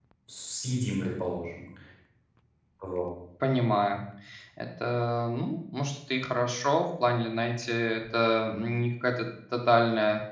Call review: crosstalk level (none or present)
none